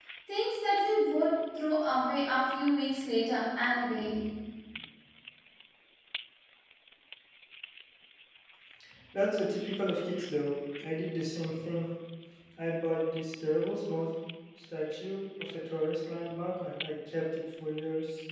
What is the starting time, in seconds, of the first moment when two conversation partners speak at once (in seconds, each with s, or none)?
none